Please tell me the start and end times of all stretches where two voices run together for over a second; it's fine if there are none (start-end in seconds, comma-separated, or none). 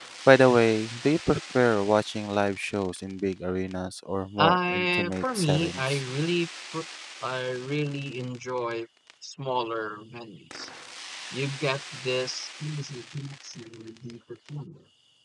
4.4-6.0